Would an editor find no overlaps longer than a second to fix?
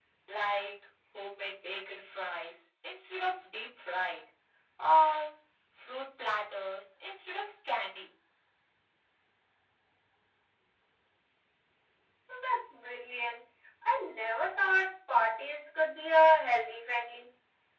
Yes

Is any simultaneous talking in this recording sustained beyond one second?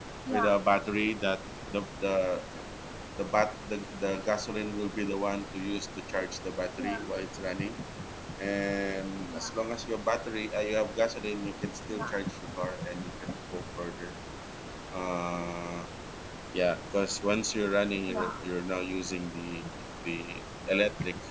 No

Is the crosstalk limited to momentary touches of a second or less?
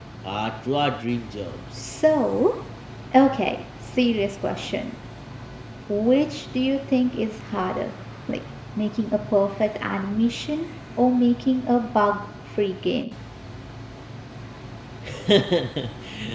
Yes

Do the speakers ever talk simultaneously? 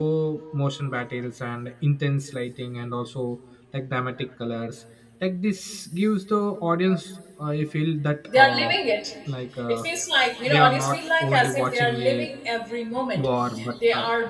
Yes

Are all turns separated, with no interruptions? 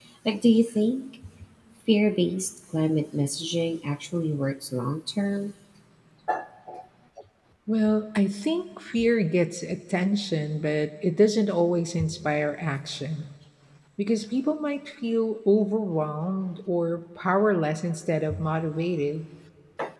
Yes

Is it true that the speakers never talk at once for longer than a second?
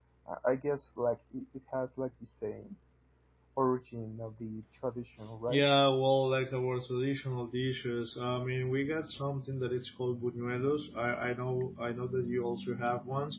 Yes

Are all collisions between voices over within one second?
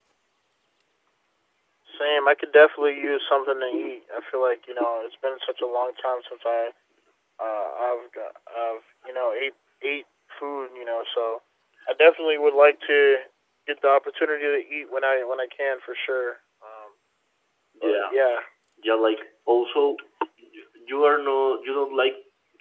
Yes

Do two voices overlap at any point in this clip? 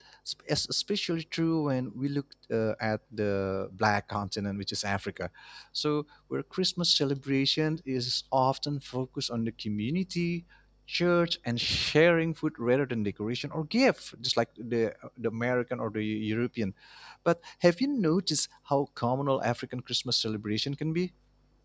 No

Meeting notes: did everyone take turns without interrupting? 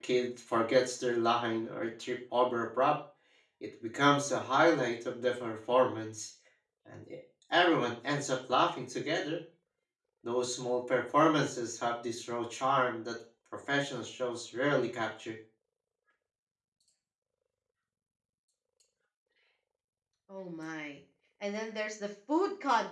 Yes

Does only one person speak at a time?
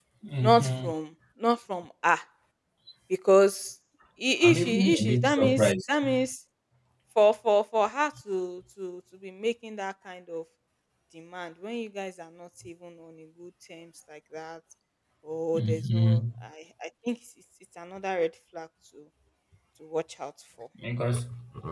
No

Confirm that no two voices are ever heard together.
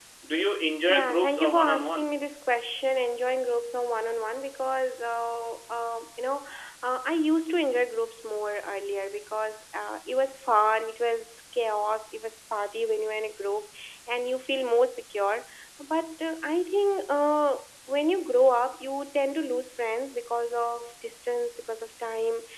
No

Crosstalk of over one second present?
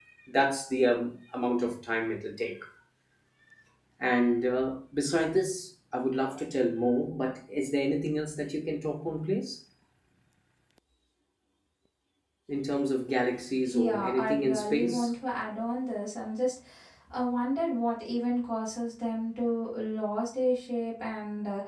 Yes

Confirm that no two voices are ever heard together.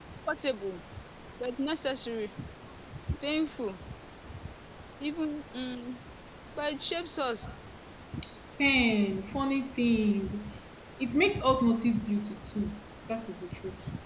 Yes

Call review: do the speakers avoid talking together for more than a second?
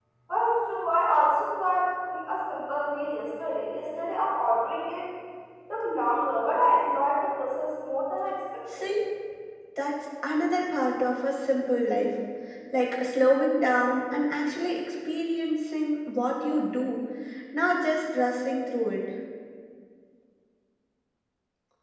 Yes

